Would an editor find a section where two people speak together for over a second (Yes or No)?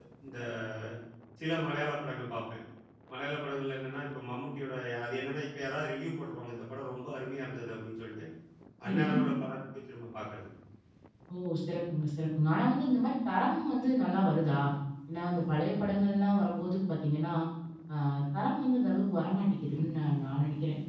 No